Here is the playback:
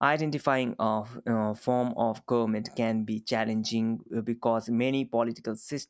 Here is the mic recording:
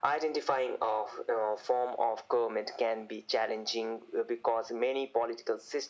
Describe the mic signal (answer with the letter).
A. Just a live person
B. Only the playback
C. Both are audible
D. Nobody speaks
B